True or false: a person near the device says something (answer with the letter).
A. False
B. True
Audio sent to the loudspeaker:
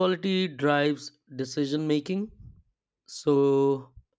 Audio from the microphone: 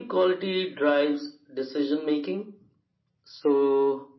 A